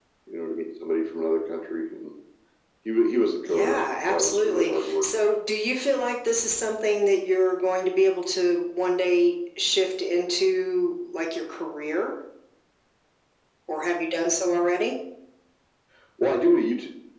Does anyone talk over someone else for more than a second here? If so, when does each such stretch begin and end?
3.5-5.0

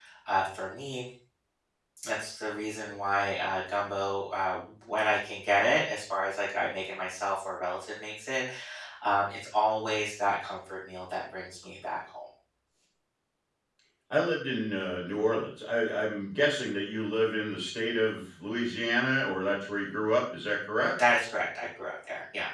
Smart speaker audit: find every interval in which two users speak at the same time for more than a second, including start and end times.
none

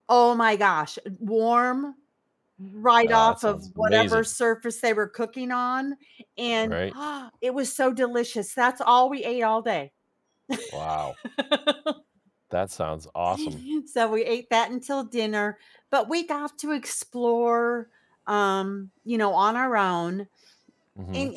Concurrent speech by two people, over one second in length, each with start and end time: 3.0-4.2

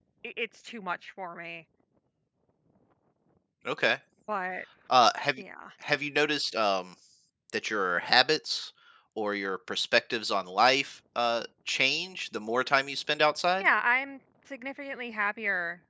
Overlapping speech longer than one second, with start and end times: none

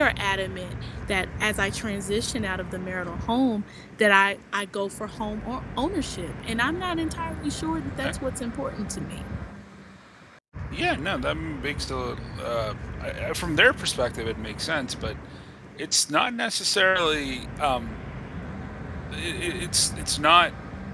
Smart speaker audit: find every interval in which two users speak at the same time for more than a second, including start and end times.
none

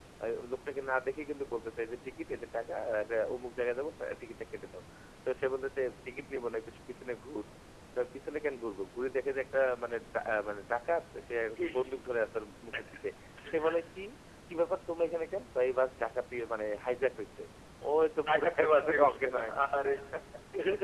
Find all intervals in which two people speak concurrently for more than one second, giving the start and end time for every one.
18.3-19.6

